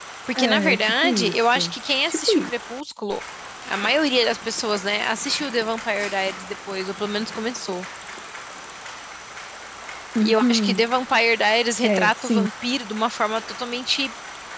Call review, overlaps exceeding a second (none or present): present